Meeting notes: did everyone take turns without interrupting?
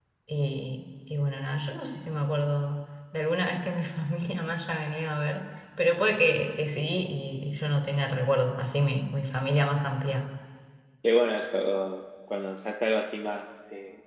Yes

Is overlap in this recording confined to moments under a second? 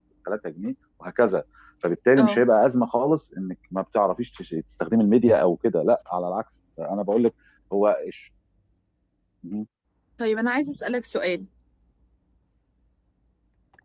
Yes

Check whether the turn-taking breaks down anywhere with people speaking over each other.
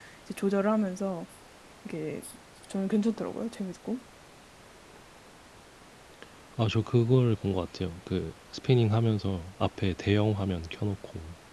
No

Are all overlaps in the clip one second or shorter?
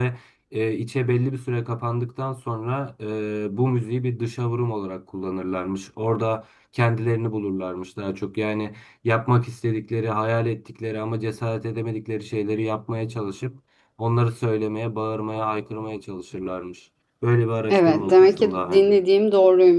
No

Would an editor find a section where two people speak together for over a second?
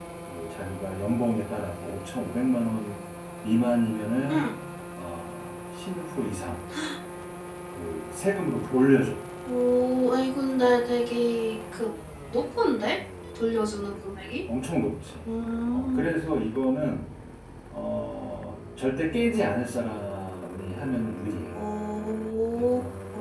No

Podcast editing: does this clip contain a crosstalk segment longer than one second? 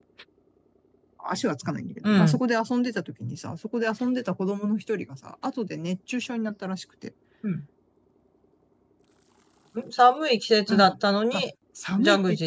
No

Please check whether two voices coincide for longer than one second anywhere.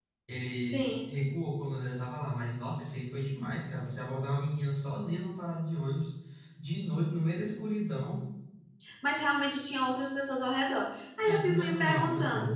Yes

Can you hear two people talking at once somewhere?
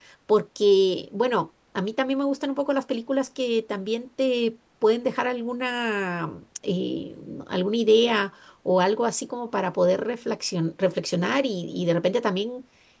No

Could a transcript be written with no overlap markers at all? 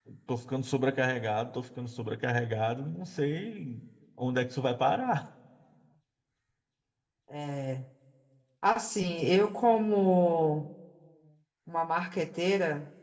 Yes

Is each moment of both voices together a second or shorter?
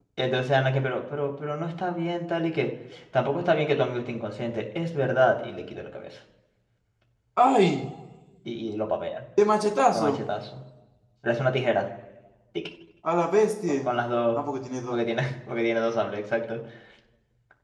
Yes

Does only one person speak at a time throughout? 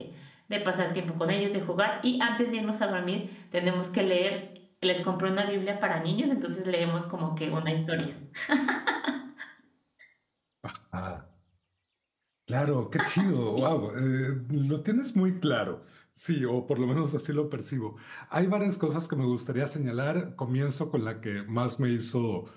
Yes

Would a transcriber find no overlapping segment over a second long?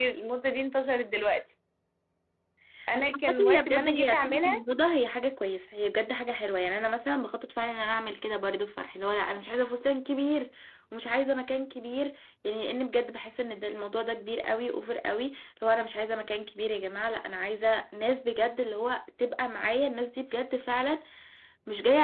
No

